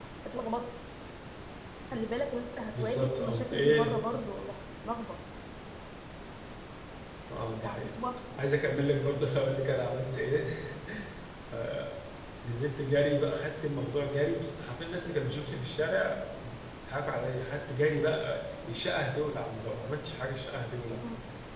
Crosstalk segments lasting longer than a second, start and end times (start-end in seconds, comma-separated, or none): 2.8-4.0